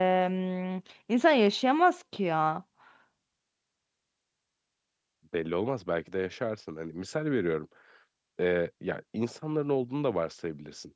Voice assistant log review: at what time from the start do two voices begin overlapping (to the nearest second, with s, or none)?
none